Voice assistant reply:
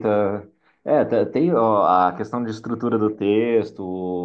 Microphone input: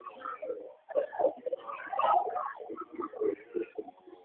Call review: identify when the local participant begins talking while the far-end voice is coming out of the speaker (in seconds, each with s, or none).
none